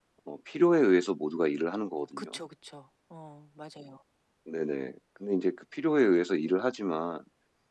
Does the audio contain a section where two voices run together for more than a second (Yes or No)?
No